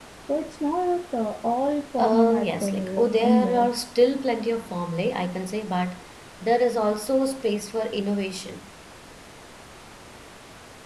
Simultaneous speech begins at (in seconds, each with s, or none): 2.0 s